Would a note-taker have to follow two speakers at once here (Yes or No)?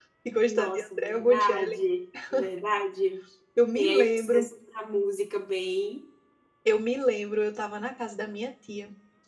Yes